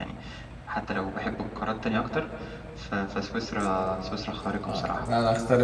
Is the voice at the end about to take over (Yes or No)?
Yes